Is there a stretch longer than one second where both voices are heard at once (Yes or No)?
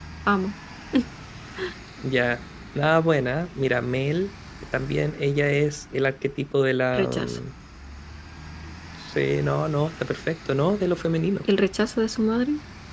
No